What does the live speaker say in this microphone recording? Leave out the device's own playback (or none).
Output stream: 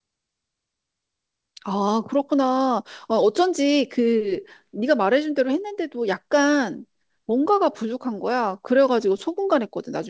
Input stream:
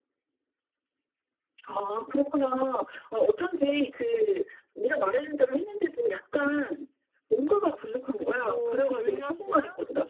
그리고 물엿이랑